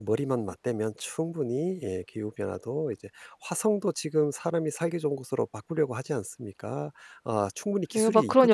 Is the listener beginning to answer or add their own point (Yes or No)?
Yes